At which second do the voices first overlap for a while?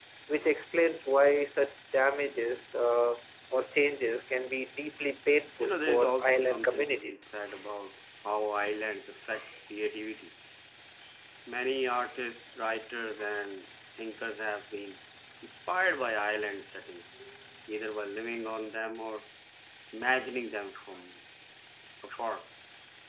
5.6 s

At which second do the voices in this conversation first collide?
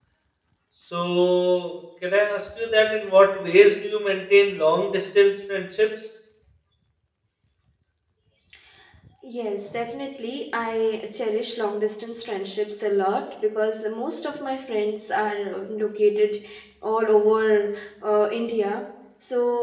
none

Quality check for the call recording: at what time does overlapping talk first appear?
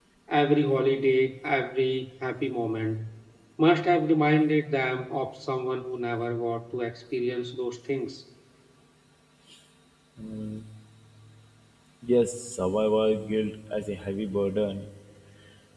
none

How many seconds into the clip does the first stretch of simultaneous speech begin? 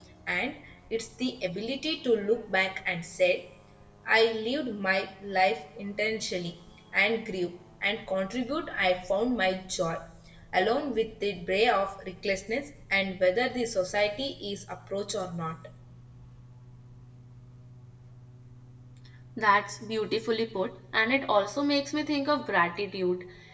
none

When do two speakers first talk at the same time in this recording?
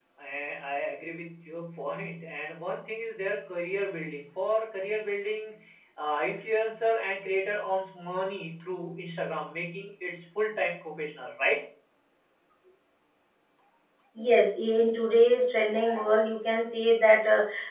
none

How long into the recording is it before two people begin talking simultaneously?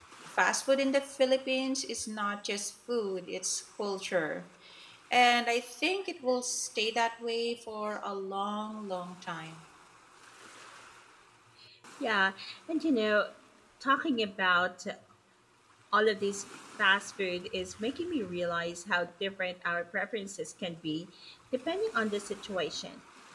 none

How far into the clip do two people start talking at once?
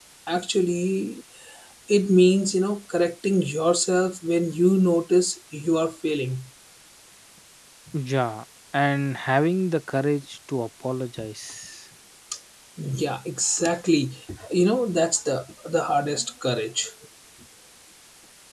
none

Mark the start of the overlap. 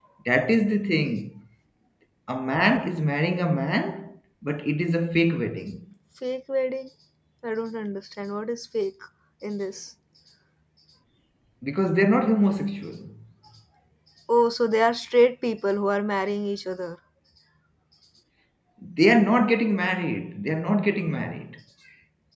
none

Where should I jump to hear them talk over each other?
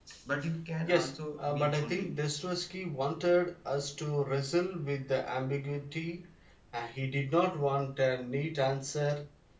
0.8 s

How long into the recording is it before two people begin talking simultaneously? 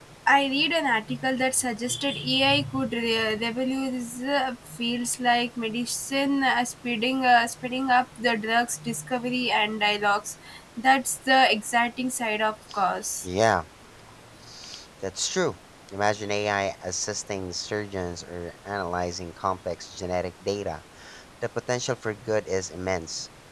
none

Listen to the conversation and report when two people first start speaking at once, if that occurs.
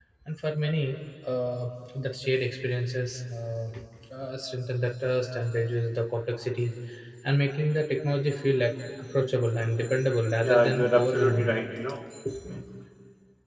10.4 s

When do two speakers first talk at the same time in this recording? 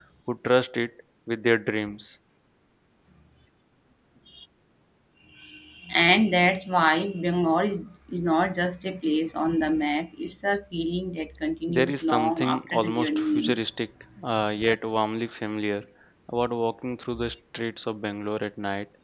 11.7 s

